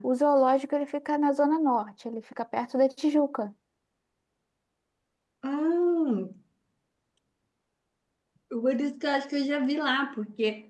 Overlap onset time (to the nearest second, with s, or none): none